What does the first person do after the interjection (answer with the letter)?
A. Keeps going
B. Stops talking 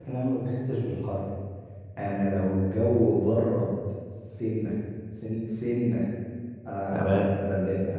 A